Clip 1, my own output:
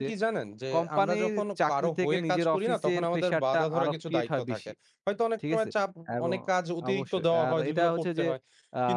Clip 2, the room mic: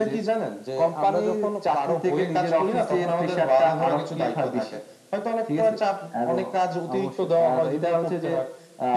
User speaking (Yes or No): No